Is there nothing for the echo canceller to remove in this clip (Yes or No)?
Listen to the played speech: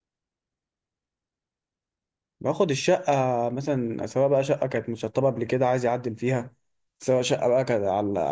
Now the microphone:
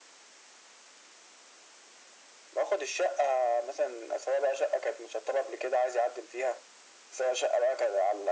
No